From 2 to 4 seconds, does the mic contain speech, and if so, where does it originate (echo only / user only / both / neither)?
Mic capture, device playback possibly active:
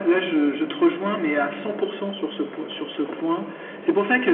echo only